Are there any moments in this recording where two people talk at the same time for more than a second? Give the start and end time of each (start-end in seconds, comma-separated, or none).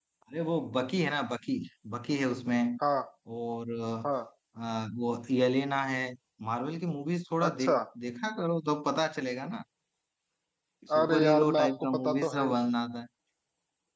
11.0-12.6